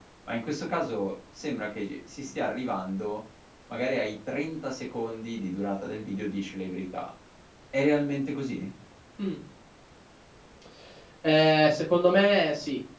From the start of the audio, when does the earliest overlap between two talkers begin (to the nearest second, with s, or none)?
none